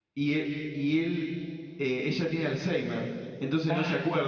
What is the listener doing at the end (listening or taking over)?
listening